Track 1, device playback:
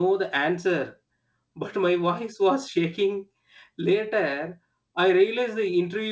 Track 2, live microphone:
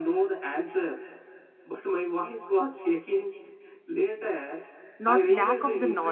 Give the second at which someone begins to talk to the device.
5.1 s

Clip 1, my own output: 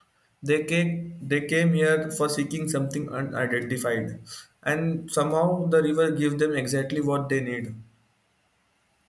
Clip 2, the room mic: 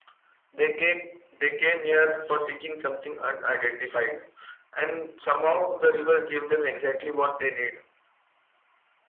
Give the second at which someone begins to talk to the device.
none

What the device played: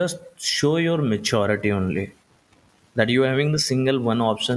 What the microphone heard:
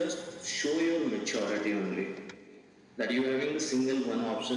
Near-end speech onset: none

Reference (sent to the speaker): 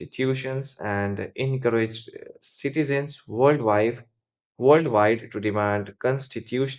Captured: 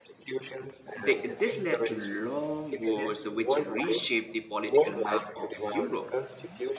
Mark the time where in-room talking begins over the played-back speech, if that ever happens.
0.9 s

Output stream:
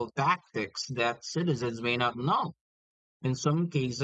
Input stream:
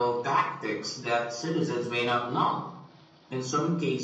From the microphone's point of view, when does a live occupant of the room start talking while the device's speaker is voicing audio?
none

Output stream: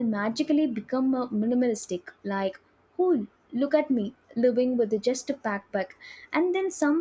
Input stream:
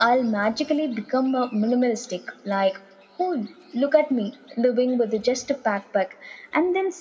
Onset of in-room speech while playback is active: none

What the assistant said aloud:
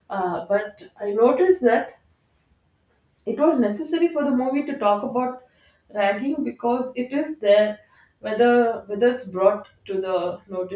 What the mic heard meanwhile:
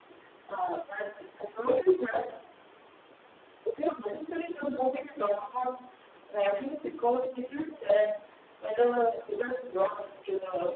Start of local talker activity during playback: none

